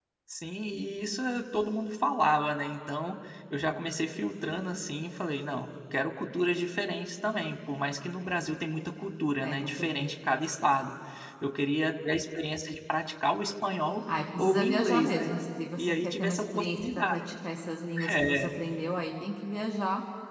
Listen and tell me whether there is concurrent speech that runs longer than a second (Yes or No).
Yes